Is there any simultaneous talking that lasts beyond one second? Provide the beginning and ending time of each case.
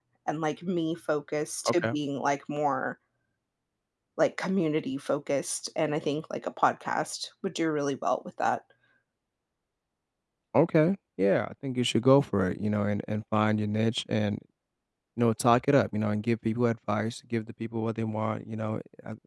none

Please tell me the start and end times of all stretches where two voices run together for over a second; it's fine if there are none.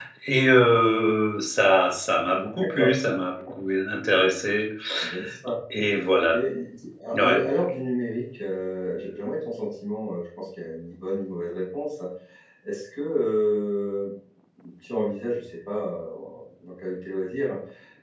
none

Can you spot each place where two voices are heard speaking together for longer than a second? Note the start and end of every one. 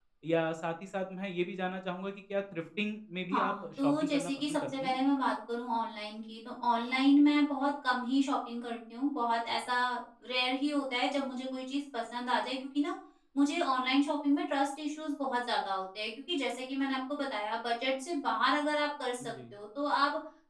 3.3-5.0

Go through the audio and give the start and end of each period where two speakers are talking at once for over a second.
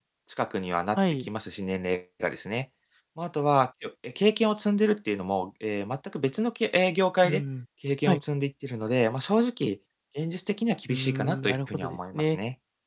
10.9-12.4

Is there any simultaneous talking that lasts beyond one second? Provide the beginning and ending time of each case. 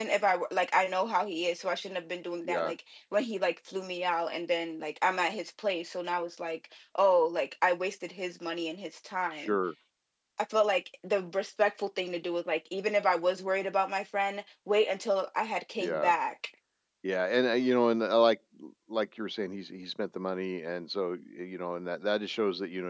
none

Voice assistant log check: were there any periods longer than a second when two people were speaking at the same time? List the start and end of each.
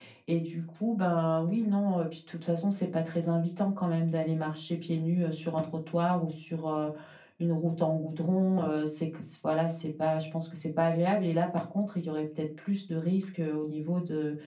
none

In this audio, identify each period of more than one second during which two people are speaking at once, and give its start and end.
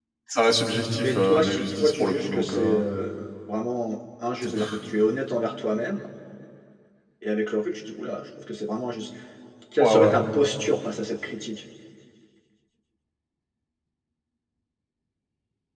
1.0-2.8

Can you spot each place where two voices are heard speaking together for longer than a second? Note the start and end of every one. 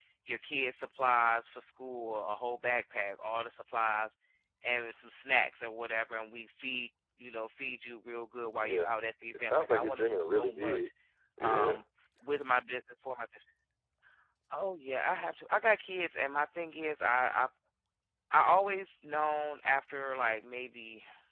9.4-10.9

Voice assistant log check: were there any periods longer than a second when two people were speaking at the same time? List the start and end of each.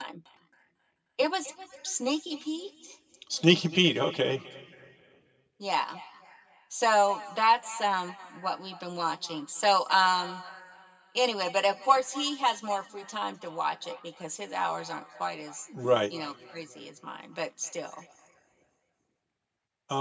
none

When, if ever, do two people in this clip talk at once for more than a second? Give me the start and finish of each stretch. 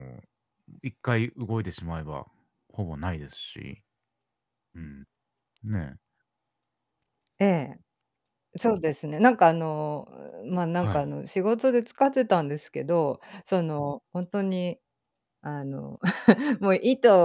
none

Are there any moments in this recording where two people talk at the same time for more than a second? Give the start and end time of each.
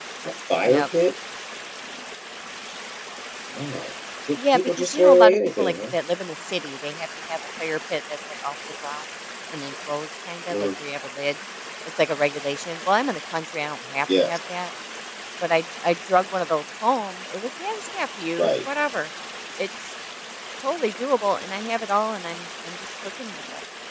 4.4-5.7

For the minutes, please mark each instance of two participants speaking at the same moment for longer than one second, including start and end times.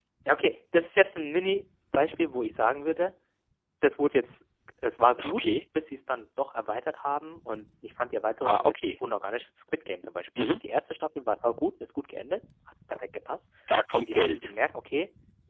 none

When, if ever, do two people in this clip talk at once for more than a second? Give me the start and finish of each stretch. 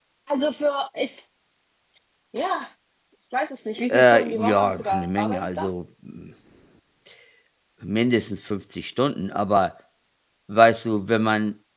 3.9-5.7

